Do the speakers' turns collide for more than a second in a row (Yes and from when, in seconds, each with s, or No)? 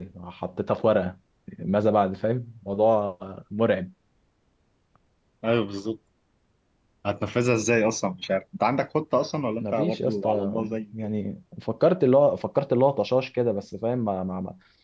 Yes, from 9.6 s